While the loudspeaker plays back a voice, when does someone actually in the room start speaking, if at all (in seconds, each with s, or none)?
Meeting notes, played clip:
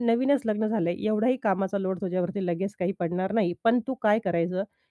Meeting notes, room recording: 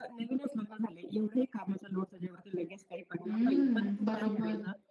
3.2 s